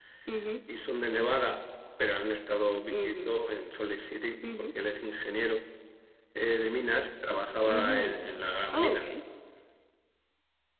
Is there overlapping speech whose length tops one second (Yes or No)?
No